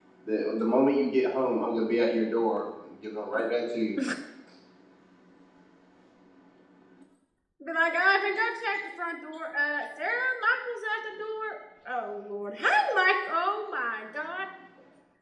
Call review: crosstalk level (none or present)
none